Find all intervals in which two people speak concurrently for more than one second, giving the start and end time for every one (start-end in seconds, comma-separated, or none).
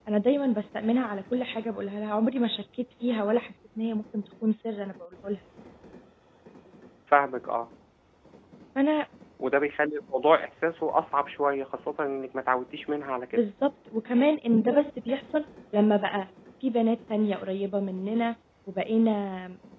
none